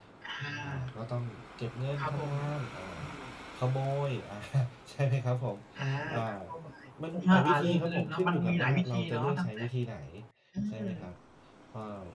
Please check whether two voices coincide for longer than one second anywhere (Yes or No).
Yes